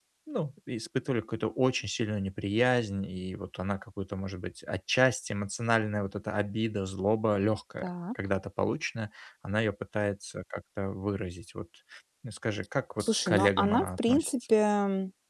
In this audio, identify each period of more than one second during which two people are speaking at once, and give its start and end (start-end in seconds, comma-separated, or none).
13.0-14.3